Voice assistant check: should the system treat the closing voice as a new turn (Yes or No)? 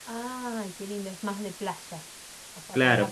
Yes